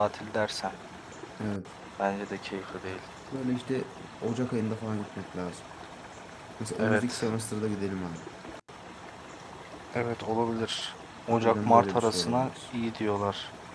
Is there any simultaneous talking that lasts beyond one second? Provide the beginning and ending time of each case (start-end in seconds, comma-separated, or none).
11.3-12.5